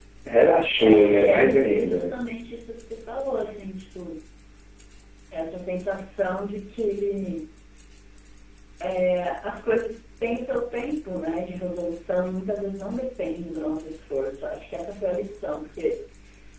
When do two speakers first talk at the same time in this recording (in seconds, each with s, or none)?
0.8 s